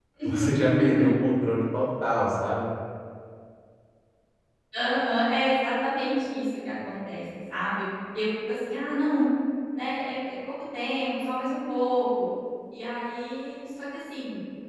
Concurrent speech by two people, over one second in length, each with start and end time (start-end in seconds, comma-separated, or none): none